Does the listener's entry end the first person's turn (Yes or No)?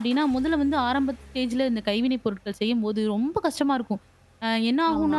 No